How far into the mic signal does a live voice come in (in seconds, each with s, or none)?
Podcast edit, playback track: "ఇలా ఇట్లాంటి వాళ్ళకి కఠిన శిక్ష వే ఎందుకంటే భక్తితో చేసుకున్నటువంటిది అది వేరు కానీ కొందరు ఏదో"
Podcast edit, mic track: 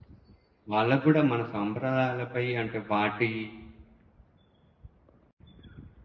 0.7 s